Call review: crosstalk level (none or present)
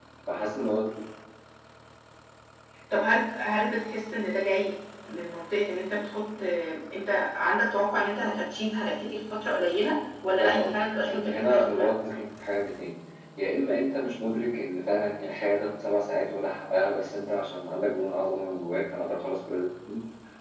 present